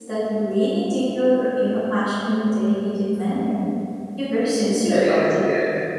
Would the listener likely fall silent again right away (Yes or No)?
No